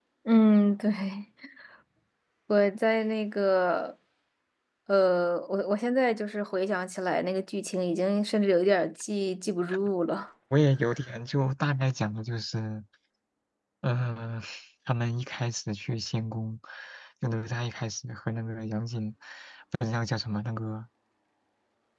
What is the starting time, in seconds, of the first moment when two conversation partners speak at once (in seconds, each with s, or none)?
none